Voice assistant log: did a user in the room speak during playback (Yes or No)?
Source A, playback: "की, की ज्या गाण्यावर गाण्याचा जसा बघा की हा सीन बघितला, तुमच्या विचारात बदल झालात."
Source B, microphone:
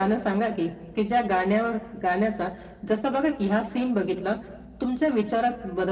No